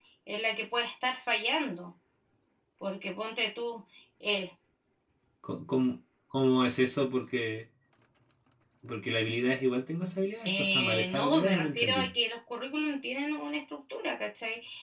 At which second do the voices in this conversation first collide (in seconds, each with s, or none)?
10.4 s